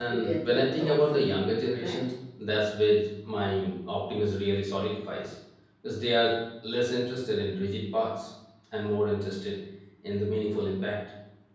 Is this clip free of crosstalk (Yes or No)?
No